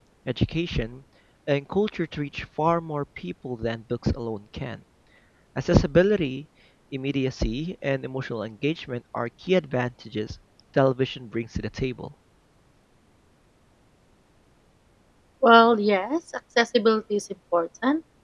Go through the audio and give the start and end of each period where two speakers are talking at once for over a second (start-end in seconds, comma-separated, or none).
none